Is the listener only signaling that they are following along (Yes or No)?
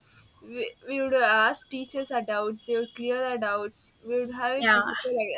Yes